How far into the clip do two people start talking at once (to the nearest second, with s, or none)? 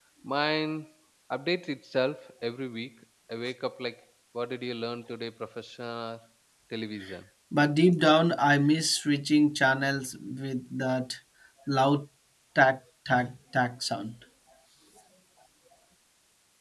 none